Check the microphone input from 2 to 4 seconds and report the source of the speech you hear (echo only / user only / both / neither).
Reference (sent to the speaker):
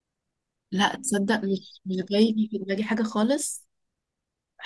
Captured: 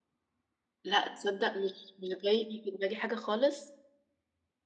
echo only